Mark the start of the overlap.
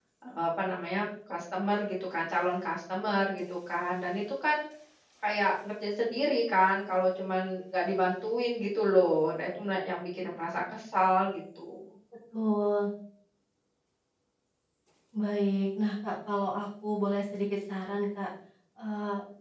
none

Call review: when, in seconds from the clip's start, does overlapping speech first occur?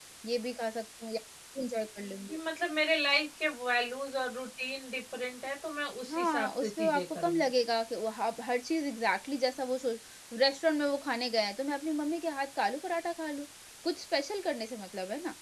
6 s

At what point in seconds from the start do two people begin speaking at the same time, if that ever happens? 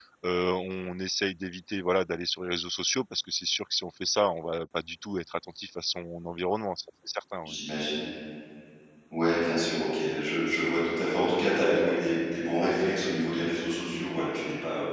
none

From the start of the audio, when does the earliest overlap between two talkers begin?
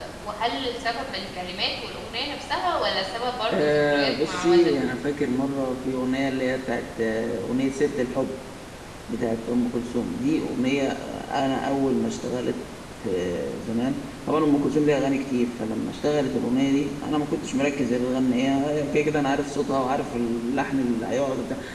4 s

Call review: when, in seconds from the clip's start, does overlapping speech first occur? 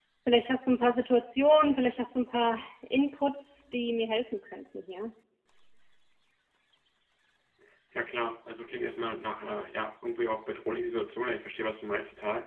none

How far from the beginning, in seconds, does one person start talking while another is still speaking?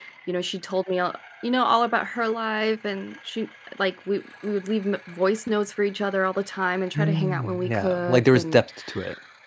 7 s

